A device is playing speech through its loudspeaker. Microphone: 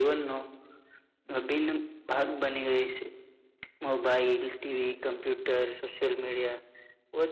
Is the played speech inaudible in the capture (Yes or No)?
No